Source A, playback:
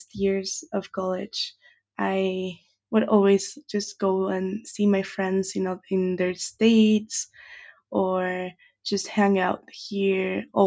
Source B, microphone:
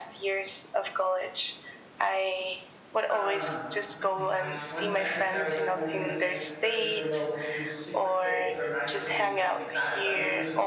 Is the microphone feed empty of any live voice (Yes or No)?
No